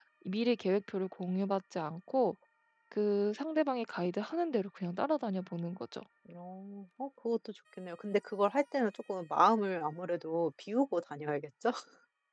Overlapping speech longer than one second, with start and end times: none

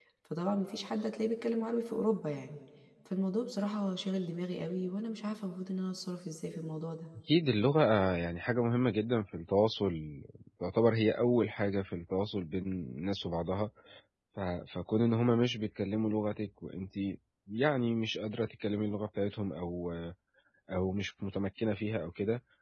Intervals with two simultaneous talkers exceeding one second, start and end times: none

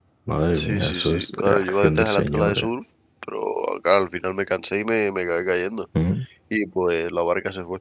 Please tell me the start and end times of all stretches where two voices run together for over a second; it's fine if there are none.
0.5-2.7

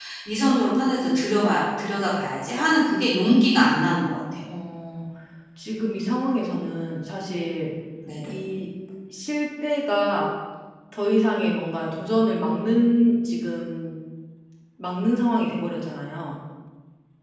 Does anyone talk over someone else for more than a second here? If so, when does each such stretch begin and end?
none

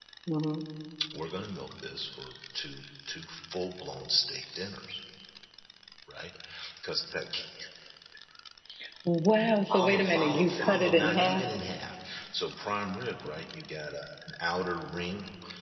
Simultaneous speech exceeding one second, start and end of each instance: 9.7-11.4

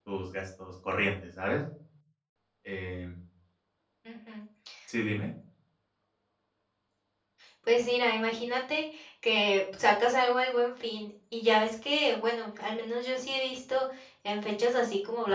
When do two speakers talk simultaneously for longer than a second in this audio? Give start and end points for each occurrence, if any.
none

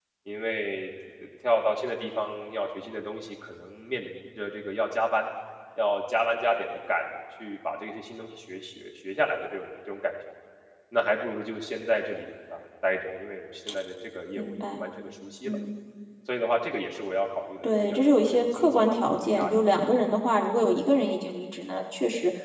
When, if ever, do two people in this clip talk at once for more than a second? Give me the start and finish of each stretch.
17.6-19.7

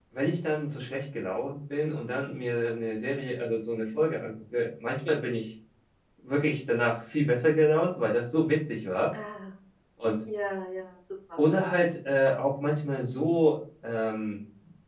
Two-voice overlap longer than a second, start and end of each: none

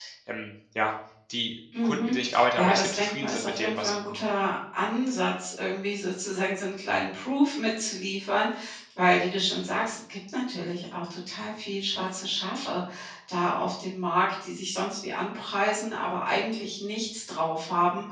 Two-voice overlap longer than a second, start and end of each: 2.6-4.2

